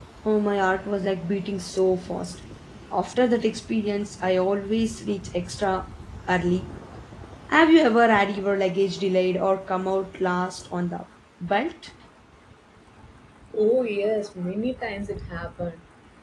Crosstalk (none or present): none